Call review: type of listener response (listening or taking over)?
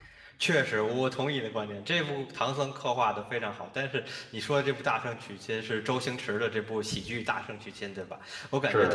listening